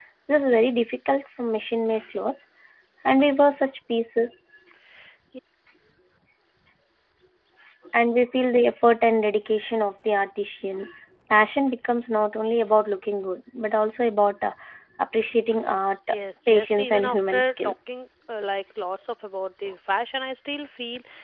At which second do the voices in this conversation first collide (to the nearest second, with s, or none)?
17 s